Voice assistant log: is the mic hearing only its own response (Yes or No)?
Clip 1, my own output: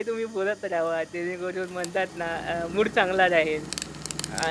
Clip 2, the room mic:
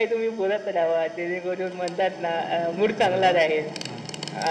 No